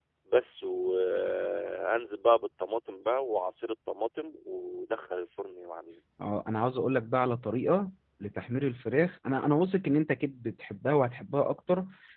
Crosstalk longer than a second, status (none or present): none